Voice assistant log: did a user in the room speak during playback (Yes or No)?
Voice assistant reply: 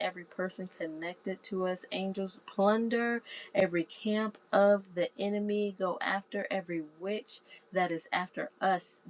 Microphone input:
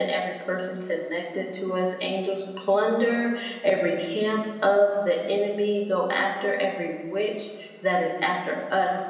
No